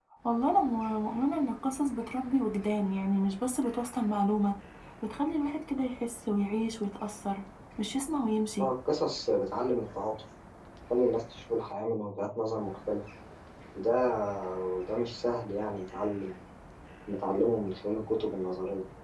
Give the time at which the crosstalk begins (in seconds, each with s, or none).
none